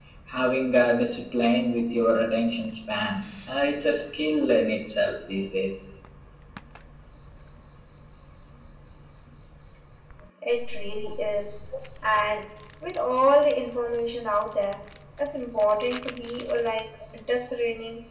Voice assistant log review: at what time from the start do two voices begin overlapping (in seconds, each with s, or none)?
none